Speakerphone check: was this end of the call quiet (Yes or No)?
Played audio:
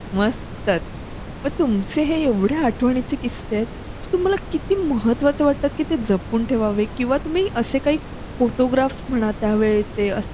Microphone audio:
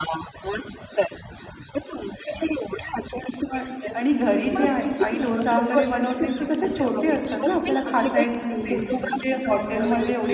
No